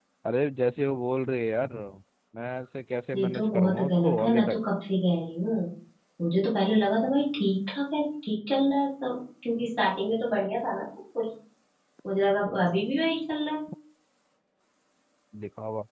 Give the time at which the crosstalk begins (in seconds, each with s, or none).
3.2 s